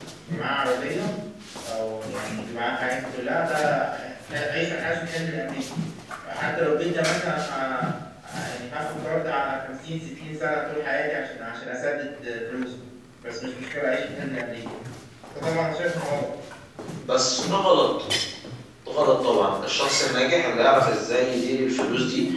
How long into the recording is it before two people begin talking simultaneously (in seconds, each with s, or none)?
none